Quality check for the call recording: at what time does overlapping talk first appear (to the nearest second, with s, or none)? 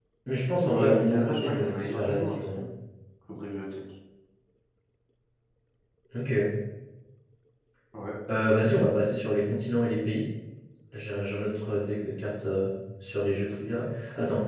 1 s